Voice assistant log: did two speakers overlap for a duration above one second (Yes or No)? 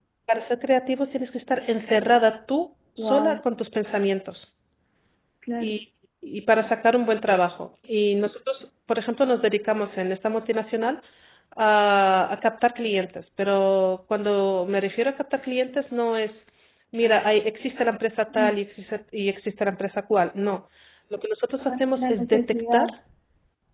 Yes